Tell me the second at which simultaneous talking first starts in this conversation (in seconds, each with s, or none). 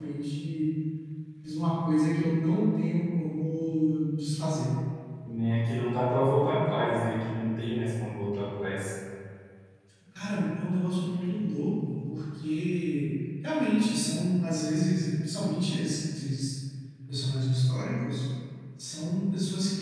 none